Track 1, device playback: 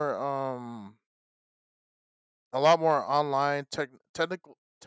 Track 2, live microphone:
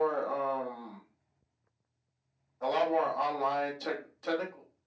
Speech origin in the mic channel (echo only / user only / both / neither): echo only